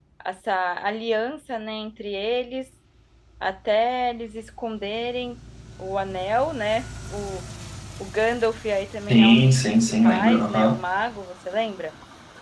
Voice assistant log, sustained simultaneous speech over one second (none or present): present